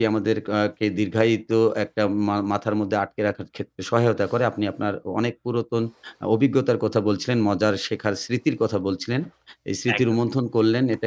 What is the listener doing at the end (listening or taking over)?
listening